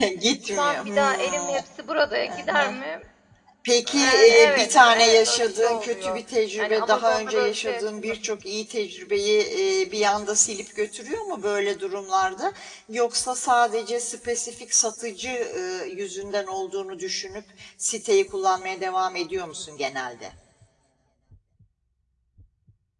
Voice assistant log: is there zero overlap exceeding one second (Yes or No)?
No